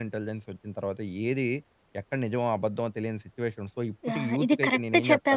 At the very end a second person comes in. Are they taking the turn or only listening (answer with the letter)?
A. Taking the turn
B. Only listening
A